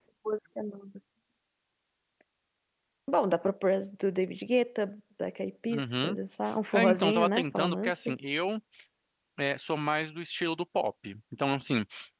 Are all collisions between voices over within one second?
No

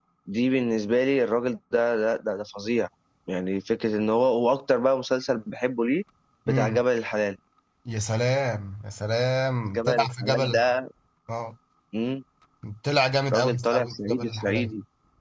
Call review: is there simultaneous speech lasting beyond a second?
Yes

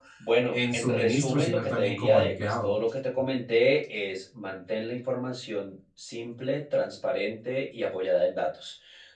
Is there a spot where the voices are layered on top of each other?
Yes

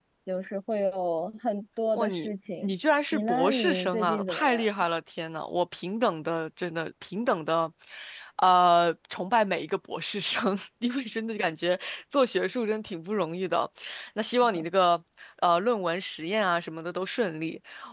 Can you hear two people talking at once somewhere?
Yes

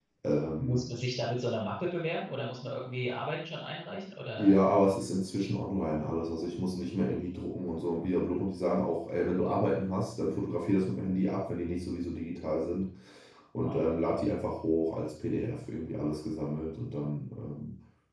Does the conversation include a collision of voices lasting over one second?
No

